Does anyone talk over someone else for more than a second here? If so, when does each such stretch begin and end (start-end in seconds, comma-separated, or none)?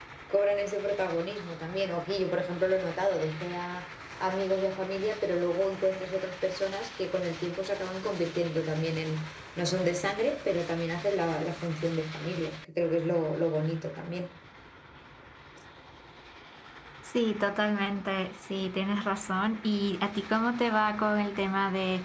none